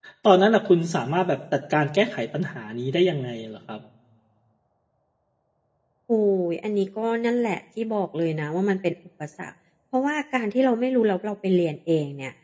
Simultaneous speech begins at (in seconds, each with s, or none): none